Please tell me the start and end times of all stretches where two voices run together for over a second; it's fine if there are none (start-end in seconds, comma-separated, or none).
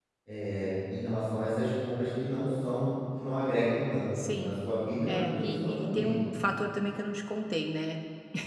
5.1-6.3